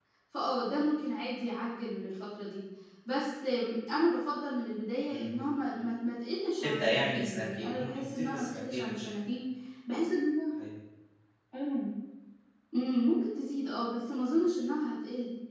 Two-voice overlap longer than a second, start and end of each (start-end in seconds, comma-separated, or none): 6.6-9.1